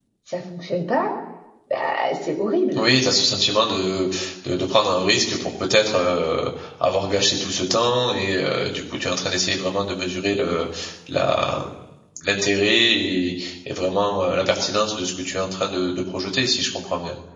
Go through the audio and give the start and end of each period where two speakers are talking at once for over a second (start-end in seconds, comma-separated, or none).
none